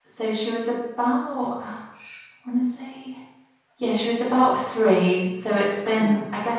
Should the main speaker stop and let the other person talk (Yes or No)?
No